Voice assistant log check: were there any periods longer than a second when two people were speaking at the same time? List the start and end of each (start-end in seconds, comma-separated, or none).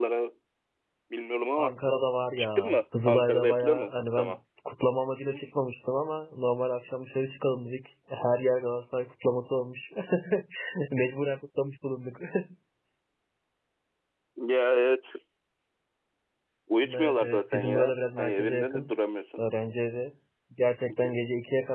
2.4-4.3, 16.8-18.9